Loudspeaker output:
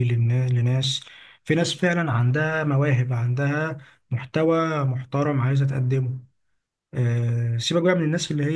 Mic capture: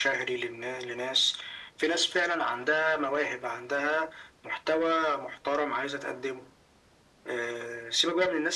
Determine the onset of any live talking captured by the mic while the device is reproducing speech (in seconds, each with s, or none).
none